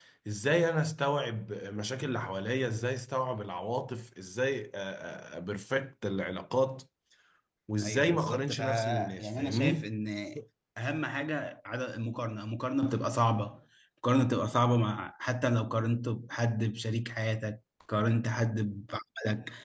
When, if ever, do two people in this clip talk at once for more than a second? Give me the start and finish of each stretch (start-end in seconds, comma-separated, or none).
7.8-9.9